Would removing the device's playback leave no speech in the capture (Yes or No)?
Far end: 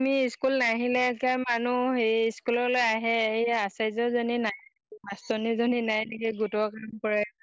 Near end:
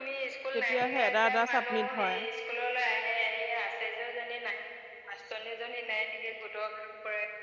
No